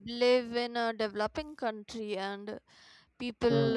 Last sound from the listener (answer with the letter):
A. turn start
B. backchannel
B